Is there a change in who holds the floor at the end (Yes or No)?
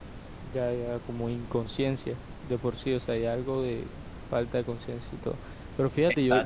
No